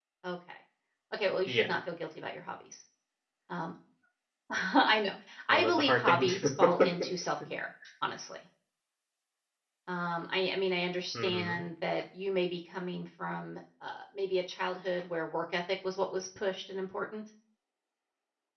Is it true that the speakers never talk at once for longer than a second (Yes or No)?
No